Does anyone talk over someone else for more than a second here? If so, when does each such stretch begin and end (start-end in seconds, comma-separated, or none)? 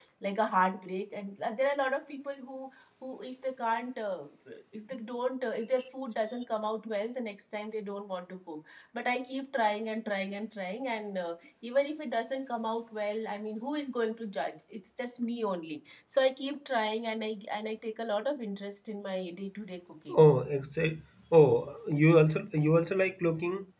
none